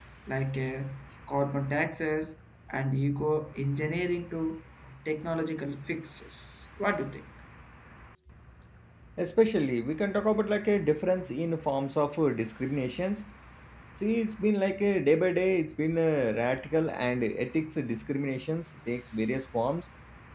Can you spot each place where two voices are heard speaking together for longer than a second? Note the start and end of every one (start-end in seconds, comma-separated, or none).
none